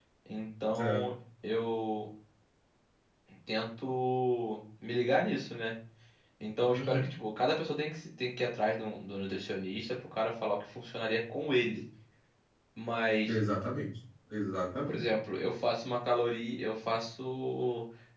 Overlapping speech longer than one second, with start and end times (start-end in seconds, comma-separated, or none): none